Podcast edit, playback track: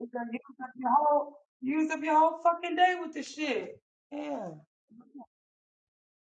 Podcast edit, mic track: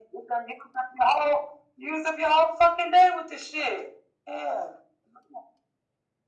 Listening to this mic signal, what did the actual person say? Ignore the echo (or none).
none